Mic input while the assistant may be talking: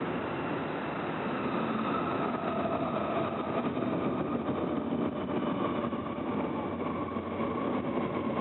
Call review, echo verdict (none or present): none